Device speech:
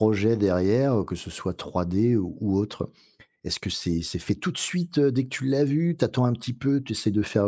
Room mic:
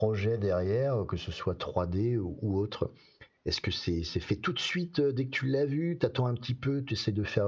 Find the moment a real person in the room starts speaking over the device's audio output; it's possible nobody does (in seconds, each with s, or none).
none